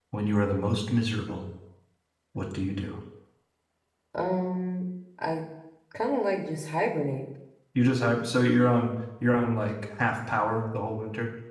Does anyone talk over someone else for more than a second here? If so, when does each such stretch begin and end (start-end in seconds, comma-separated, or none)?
none